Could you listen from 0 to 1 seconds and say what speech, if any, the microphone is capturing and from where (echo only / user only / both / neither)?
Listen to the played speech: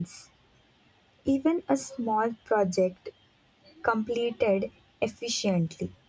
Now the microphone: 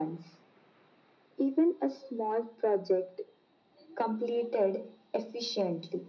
echo only